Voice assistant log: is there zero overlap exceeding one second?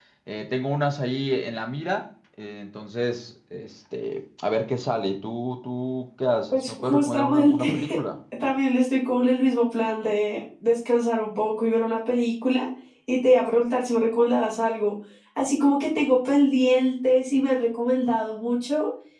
No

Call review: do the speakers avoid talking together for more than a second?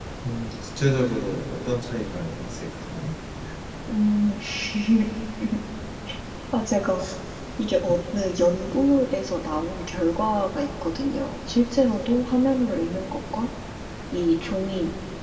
Yes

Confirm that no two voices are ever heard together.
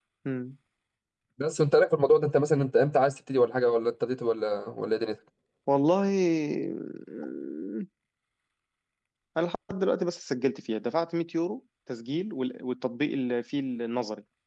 Yes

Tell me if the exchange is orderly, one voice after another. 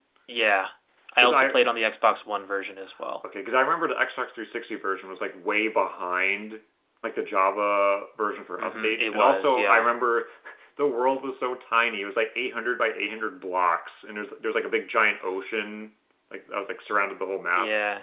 No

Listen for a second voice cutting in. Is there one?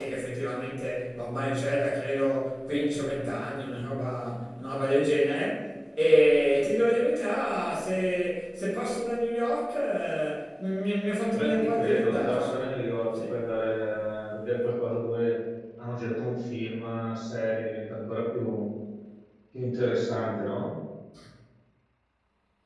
Yes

